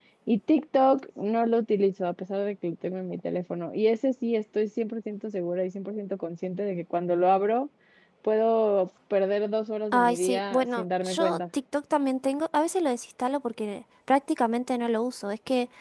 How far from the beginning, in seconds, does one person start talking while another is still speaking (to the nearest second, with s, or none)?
10 s